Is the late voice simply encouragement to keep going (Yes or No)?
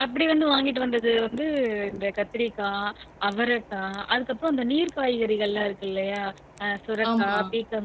Yes